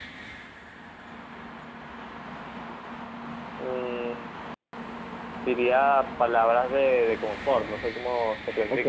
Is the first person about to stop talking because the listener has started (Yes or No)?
Yes